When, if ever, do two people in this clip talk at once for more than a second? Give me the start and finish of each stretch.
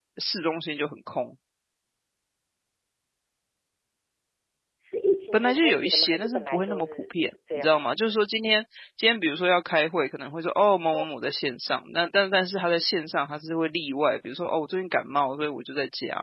5.3-7.9

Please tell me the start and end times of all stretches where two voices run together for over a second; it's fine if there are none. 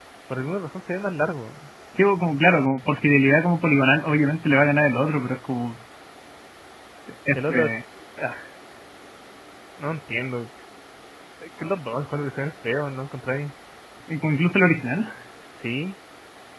none

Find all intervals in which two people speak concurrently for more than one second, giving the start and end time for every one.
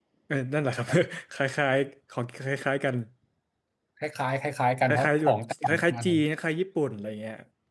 4.9-6.2

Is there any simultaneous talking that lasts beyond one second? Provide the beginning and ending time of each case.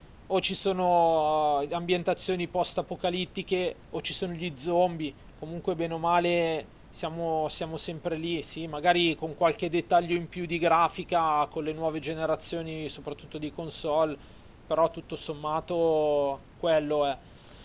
none

